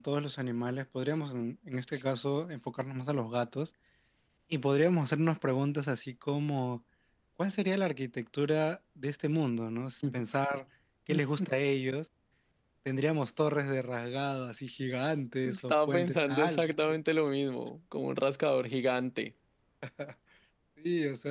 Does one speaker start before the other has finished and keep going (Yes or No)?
Yes